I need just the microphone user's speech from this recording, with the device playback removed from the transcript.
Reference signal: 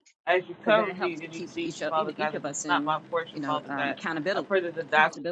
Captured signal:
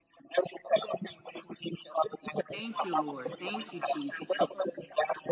Thank you, Lord. Thank you, Jesus.

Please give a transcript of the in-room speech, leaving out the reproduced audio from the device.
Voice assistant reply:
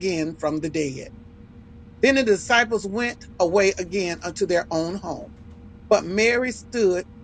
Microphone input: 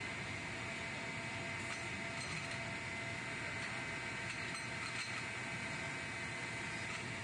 none

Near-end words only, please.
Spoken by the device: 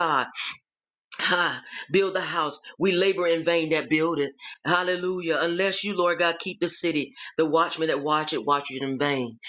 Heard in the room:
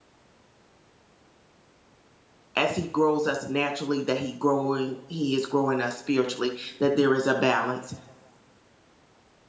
as he grows us naturally that he growing he is growing us spiritually that there is a balance

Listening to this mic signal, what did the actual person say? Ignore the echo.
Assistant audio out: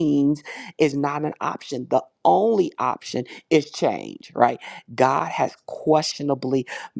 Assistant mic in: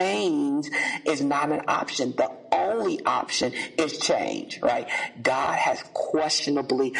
none

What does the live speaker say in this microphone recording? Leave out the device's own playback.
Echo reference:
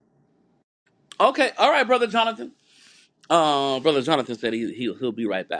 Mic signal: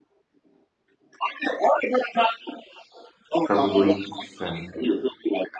probably sin.

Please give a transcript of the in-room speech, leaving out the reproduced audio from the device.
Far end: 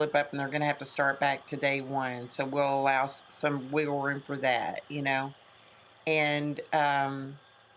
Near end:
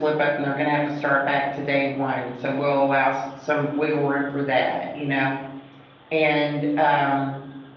none

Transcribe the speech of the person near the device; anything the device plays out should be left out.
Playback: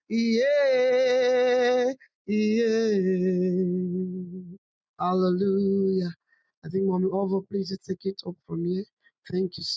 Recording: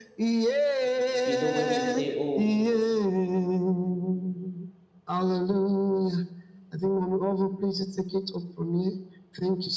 You know, when we say, oh,

